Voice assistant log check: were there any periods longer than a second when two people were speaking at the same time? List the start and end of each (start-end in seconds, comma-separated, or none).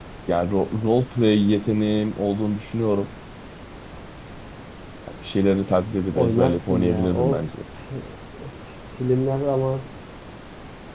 6.1-7.4